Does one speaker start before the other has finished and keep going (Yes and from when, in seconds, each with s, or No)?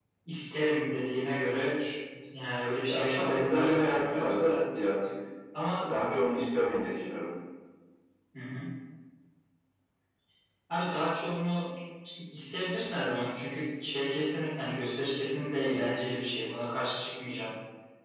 Yes, from 2.9 s